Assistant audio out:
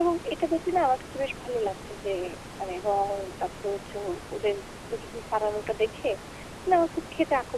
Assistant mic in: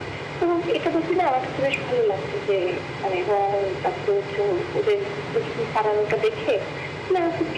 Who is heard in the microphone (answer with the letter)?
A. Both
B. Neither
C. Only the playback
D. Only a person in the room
C